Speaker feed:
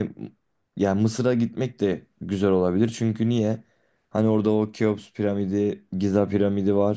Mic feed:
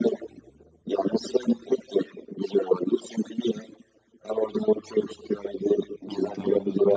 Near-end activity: present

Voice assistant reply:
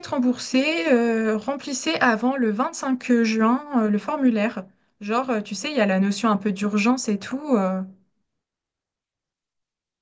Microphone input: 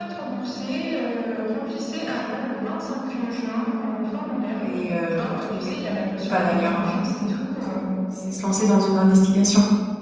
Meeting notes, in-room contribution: present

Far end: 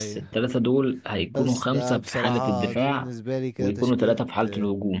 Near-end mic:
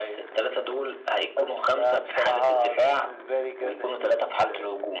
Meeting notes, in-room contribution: none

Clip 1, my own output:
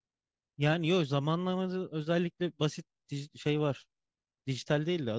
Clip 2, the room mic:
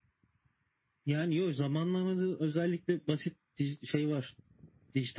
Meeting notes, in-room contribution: none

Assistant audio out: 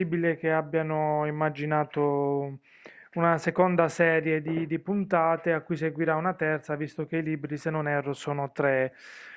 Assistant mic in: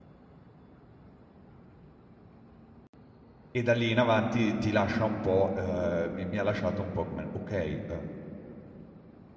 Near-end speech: present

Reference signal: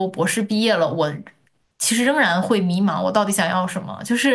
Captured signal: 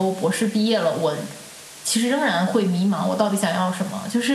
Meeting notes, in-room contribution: none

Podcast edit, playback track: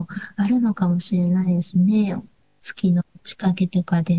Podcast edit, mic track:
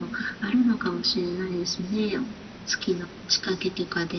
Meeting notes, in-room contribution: none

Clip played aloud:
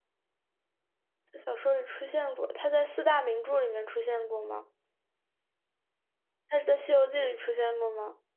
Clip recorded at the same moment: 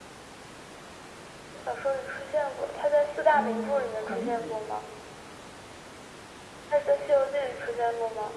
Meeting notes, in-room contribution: present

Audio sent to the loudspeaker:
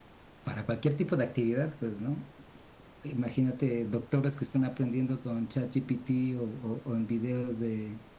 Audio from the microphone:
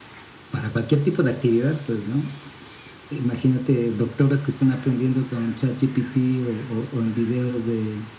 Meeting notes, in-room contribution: none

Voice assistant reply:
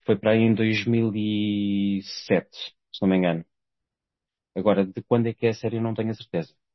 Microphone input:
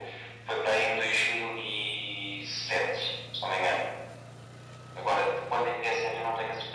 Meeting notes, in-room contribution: none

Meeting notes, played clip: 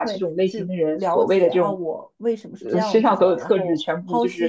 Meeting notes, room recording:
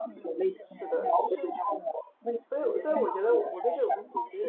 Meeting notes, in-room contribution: present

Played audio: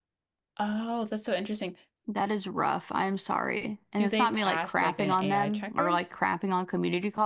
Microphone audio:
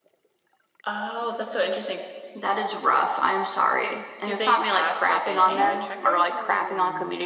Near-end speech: present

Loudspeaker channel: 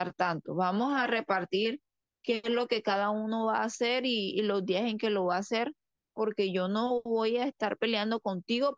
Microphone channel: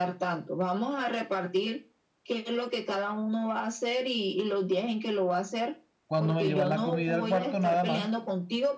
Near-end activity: present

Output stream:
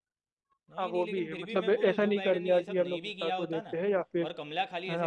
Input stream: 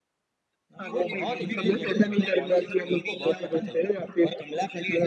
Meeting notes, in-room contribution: present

